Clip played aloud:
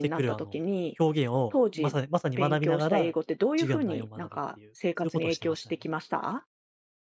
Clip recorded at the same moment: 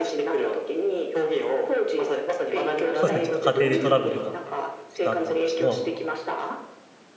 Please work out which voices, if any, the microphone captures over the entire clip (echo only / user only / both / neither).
both